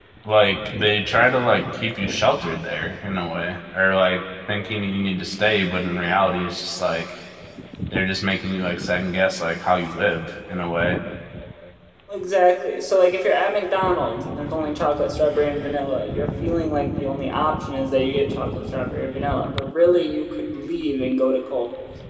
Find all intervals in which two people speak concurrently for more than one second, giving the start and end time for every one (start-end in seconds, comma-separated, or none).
none